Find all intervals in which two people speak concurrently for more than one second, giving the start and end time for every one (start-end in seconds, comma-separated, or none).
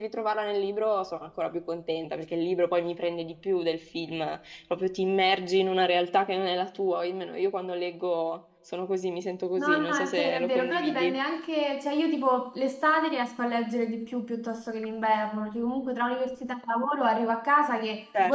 9.6-11.2